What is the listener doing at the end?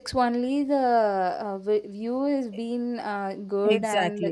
taking over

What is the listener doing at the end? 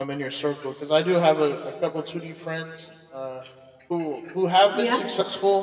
listening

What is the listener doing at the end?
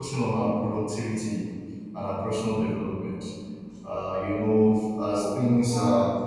listening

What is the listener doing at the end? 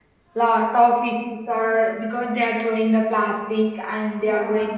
listening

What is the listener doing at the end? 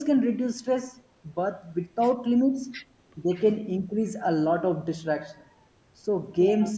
listening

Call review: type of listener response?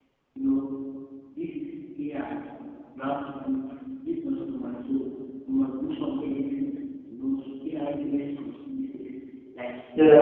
listening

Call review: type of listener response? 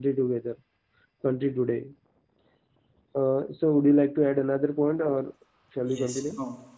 taking over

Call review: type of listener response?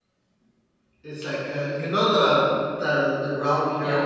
listening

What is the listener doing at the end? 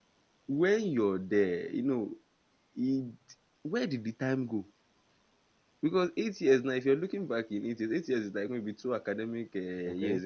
listening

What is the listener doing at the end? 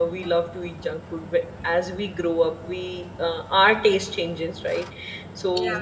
listening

